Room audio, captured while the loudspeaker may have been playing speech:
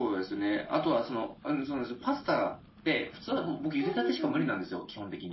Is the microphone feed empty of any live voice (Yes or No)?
No